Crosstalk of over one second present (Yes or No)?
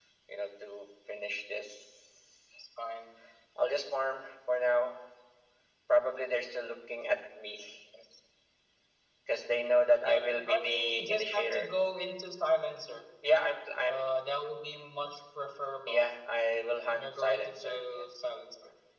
Yes